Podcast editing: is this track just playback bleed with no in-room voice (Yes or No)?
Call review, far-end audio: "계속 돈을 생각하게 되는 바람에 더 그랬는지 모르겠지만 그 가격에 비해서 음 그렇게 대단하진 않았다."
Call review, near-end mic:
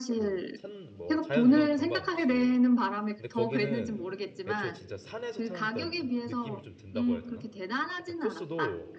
No